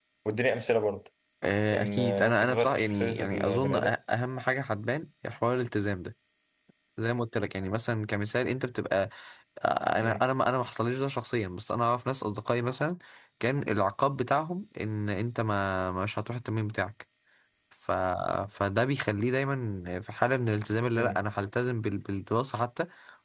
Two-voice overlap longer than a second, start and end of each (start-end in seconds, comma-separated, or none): 1.7-3.9